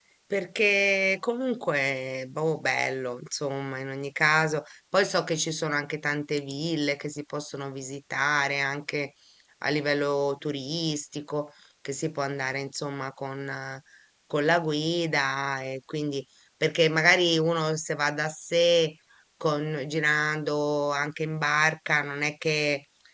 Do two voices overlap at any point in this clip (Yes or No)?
No